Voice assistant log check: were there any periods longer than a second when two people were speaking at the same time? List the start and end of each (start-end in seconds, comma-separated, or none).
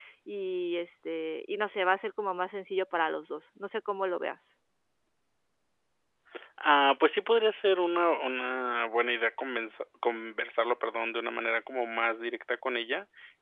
none